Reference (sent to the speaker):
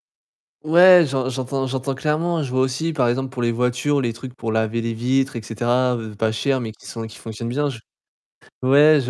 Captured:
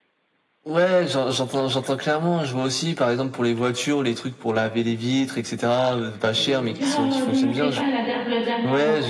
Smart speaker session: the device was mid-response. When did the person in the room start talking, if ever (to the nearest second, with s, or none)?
6 s